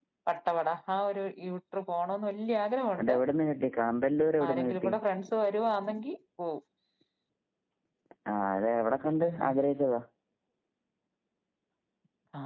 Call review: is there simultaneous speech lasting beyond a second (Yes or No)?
No